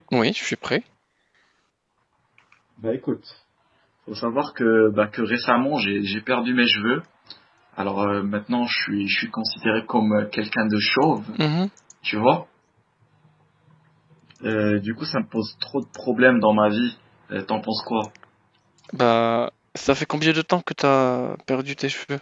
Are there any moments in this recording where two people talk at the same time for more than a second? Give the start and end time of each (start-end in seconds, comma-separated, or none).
none